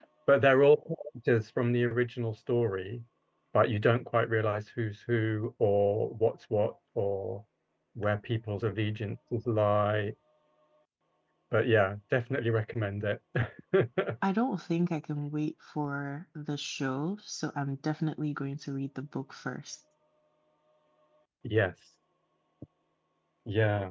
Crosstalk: none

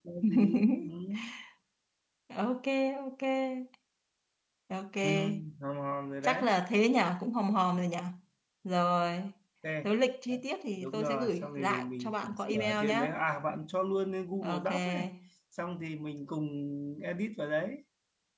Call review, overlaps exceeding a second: present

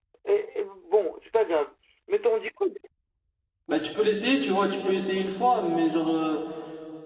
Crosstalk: none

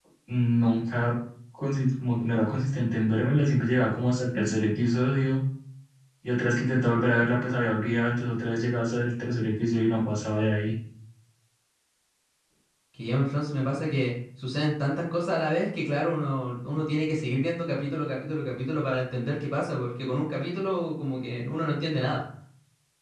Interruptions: none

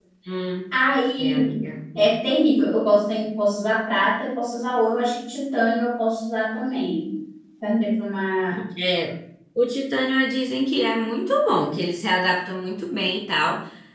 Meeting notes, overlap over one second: none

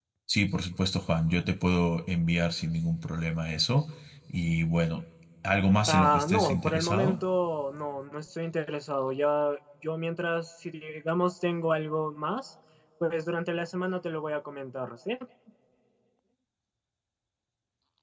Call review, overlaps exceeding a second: present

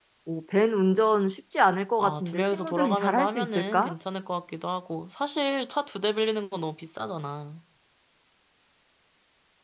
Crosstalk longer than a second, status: present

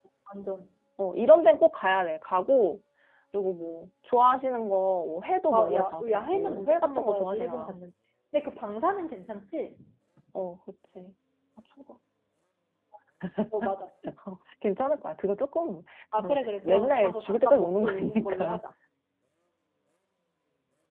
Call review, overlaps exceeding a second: present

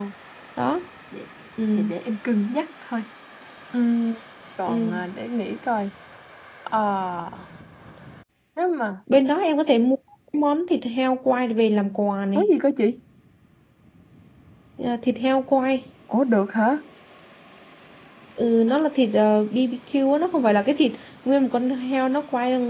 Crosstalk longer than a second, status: none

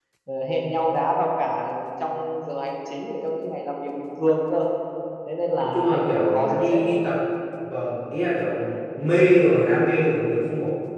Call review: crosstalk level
present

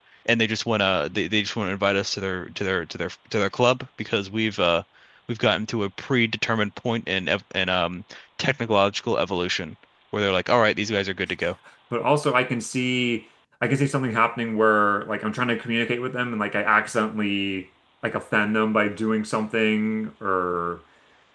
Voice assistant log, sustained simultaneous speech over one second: none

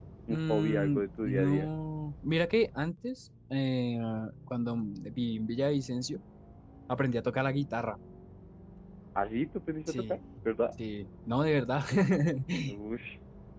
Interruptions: present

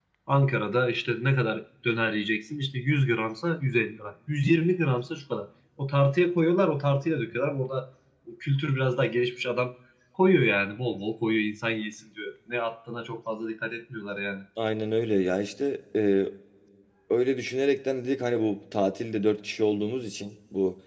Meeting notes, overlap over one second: none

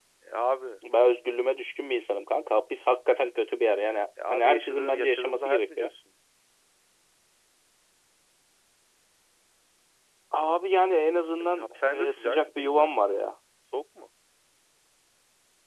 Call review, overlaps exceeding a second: present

